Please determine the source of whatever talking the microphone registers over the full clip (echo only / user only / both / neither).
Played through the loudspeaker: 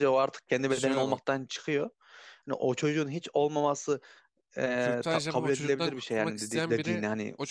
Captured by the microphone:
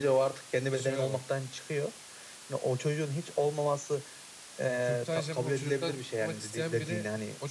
echo only